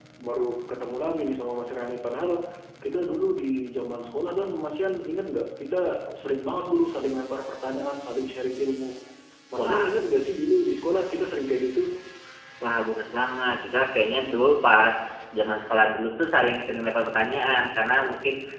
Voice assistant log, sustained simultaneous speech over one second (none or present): none